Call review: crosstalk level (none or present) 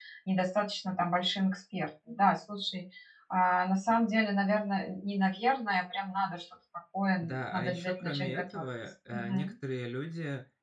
present